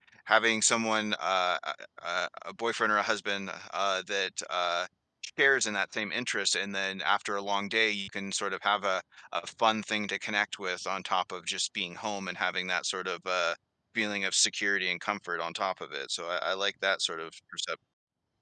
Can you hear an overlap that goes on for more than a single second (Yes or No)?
No